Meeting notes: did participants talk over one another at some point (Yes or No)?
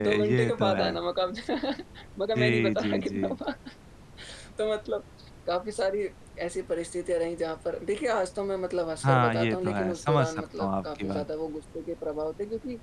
Yes